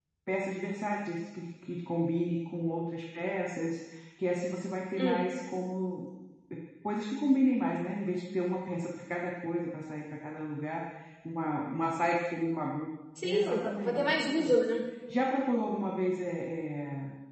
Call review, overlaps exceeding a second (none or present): present